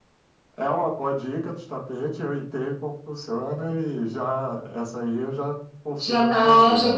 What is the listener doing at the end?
taking over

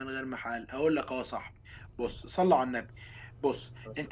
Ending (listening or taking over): listening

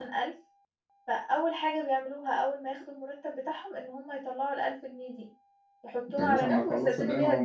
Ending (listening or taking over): taking over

